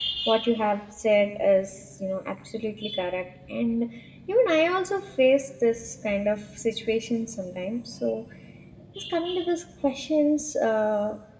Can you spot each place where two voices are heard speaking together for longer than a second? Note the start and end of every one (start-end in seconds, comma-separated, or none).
none